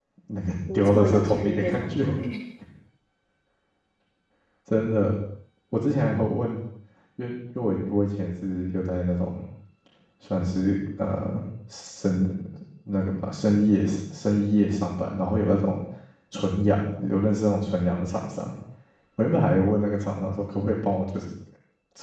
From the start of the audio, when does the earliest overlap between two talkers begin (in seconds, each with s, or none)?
0.7 s